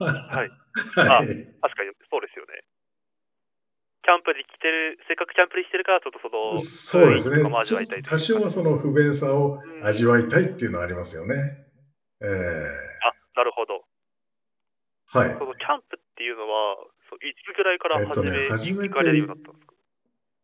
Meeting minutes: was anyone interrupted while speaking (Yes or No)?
Yes